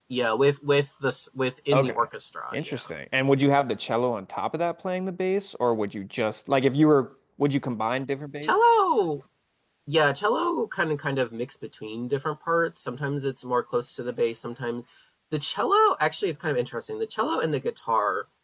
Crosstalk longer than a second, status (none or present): none